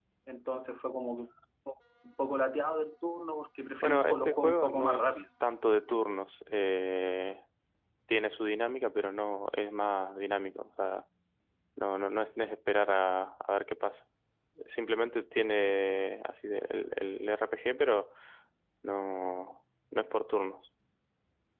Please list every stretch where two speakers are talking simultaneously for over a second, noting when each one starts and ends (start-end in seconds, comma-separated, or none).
3.8-5.2